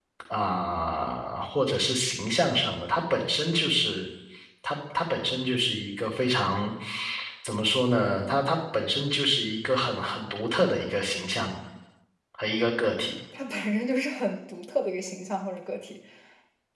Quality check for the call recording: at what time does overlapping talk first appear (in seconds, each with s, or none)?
none